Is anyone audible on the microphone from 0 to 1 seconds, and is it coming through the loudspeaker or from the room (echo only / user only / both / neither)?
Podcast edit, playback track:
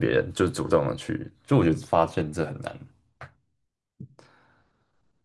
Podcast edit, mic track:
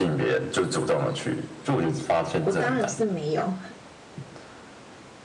echo only